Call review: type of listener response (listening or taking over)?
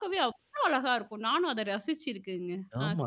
taking over